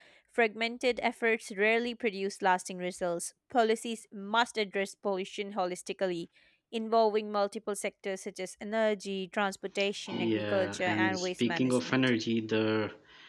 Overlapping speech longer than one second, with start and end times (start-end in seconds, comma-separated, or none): 10.1-12.0